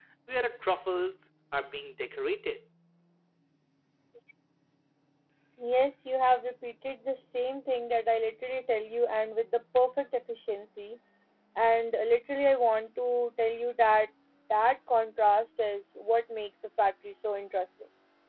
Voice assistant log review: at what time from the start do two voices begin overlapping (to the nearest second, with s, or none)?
none